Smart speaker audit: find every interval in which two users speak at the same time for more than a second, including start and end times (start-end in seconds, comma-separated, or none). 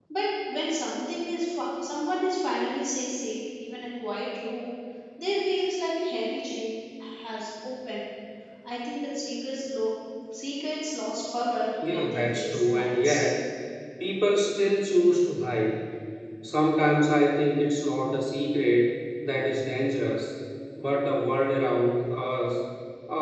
11.9-13.2